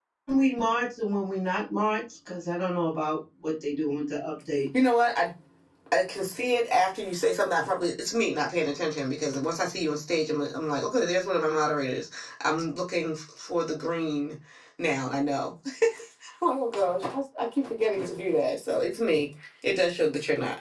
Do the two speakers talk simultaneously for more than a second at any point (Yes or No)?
No